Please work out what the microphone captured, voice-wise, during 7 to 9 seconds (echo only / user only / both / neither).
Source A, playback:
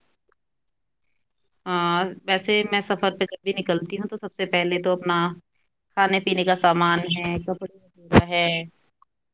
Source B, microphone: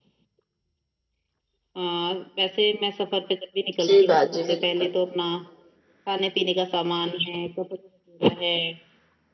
echo only